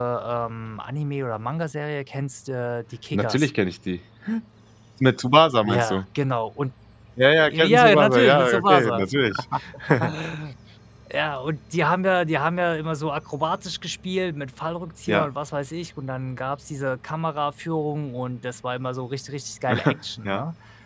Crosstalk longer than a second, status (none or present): present